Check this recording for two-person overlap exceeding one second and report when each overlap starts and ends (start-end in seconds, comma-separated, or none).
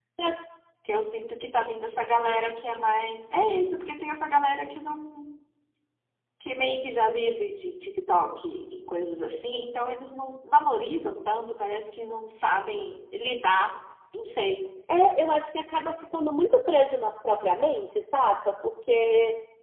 none